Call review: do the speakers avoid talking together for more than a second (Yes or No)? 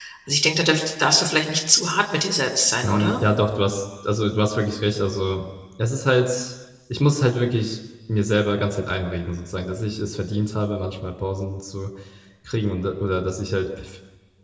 Yes